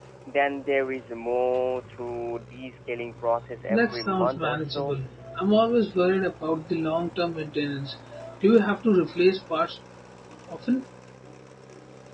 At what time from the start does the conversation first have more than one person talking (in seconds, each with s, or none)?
3.7 s